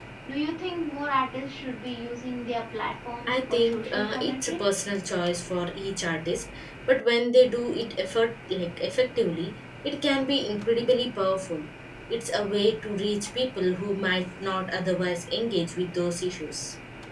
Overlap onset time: 3.3 s

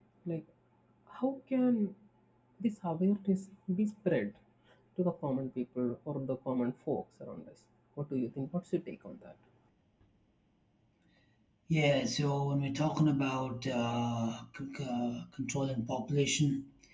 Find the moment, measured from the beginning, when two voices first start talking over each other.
none

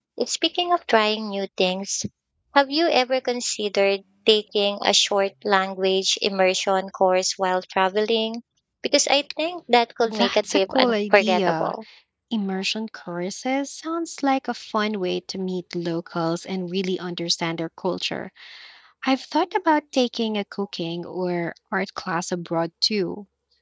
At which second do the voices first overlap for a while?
10.1 s

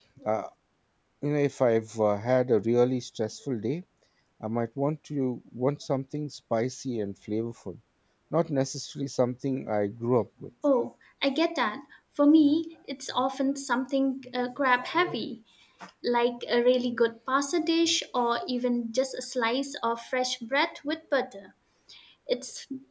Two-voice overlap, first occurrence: none

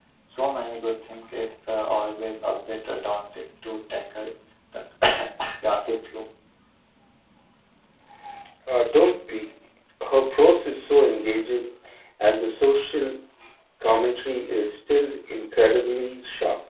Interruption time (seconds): none

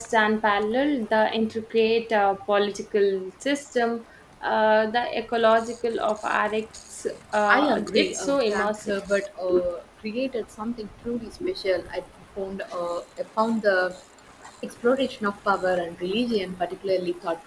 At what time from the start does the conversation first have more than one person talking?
7.5 s

